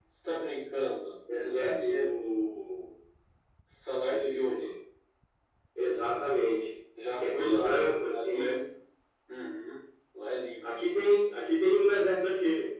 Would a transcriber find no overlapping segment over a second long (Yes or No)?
No